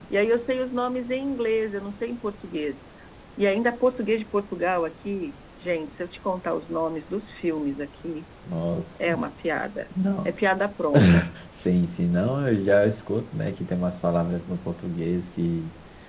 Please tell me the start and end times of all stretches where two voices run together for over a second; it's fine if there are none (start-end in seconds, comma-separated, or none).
none